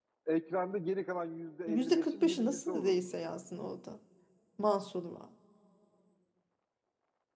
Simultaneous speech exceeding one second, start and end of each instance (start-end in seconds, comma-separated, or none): 1.7-3.1